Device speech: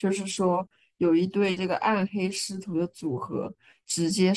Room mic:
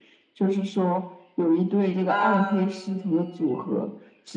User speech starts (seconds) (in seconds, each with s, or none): 2.1 s